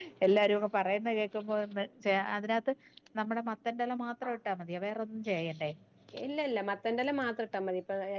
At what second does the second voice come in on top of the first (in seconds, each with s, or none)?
none